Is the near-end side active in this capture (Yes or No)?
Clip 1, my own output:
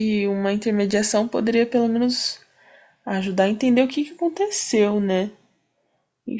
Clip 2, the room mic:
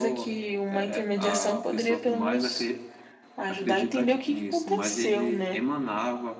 Yes